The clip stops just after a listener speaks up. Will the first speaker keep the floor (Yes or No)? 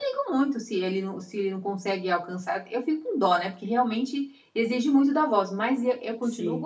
Yes